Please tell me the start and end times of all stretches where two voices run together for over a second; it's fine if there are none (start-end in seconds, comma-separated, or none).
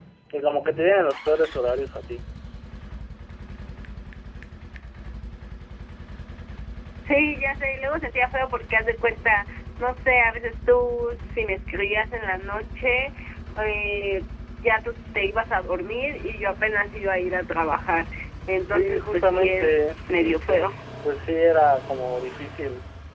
18.7-20.6